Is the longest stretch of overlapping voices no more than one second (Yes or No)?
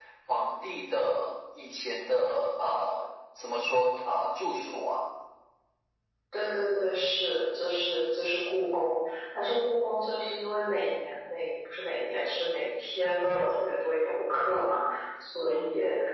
Yes